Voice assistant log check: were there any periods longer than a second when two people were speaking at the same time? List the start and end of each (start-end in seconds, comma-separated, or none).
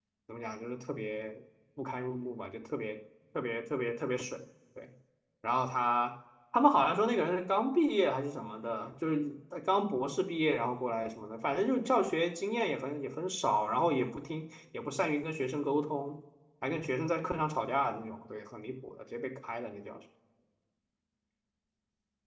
none